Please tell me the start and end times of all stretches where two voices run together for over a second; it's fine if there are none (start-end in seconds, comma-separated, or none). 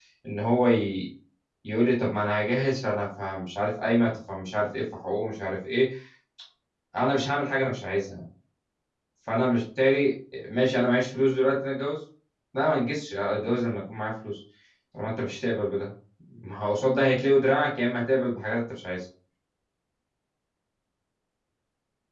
none